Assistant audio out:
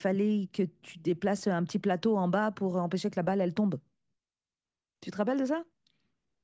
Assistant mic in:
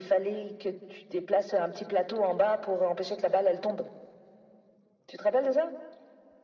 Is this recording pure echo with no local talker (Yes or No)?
Yes